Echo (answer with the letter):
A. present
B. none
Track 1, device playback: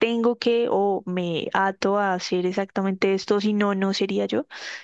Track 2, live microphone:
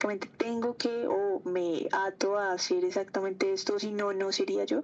A